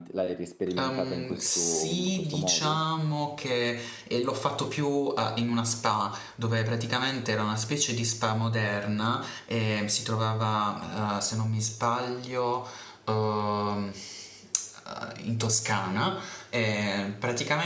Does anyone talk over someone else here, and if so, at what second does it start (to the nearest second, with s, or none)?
1 s